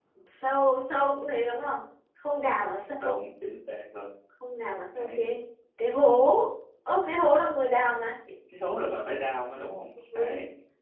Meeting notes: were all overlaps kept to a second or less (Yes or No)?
Yes